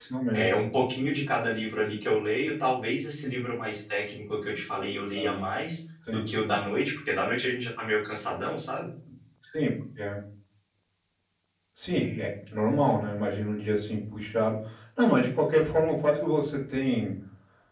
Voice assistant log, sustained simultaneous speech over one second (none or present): none